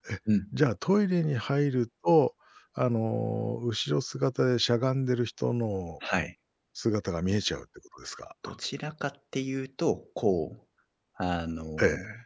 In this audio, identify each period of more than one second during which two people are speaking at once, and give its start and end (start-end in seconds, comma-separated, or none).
none